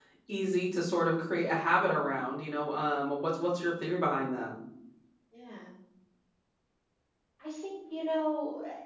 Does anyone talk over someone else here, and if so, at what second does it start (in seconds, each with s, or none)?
none